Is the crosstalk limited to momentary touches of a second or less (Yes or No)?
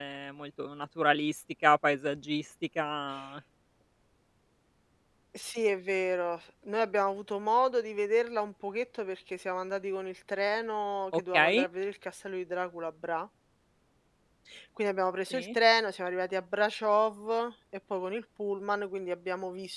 Yes